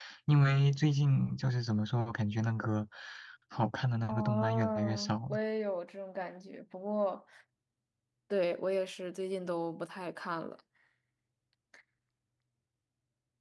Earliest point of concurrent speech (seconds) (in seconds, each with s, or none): 4.1 s